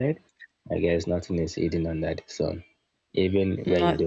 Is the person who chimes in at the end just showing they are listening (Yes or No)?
Yes